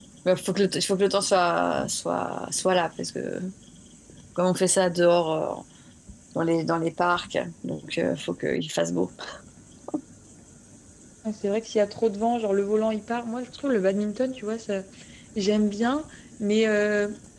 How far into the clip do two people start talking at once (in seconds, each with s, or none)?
none